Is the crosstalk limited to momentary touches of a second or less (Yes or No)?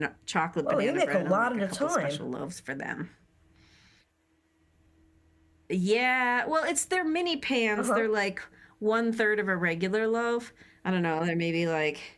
No